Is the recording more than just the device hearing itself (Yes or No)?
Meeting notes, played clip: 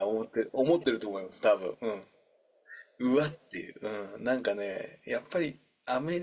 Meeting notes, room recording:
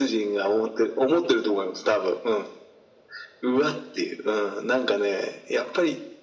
No